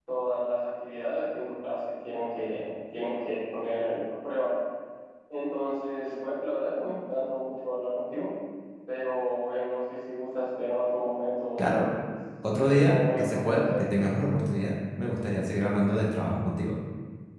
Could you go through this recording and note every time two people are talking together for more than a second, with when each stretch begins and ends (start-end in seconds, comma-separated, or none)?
12.7-13.9